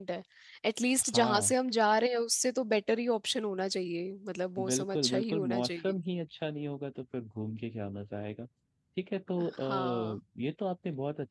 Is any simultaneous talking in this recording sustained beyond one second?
Yes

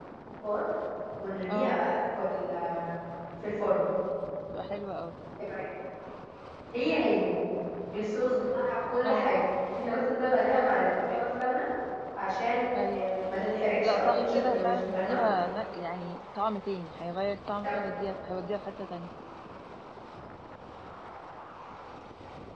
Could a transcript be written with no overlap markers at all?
No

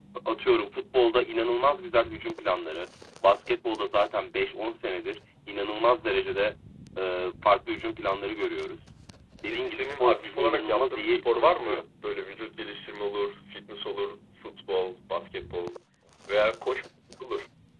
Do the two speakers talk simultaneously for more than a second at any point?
Yes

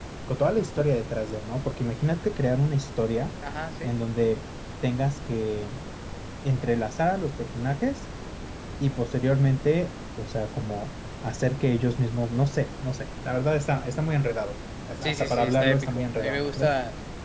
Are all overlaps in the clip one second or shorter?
No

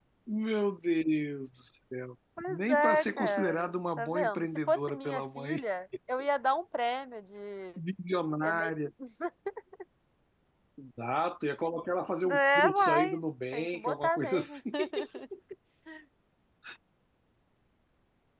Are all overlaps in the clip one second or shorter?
No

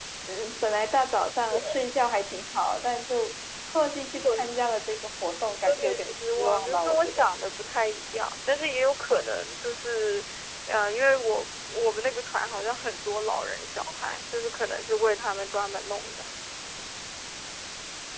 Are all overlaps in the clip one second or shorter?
No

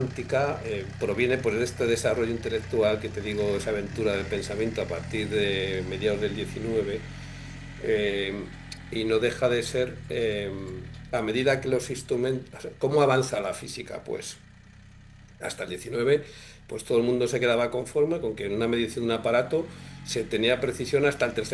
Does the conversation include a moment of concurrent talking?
No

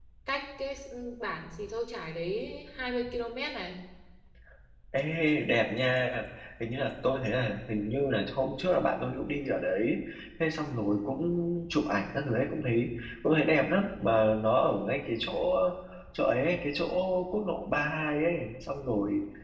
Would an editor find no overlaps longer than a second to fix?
Yes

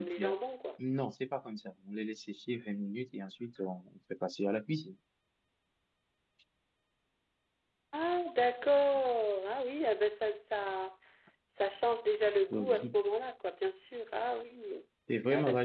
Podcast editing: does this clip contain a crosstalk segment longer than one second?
No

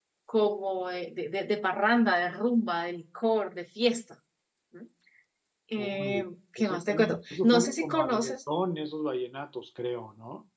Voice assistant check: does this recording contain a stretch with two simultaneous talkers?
Yes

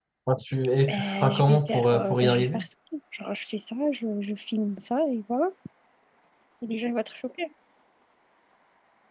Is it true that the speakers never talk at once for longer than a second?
No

